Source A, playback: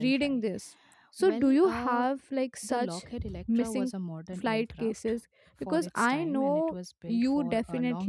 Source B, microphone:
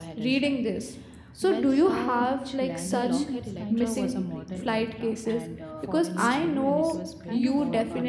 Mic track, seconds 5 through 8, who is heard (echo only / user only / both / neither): both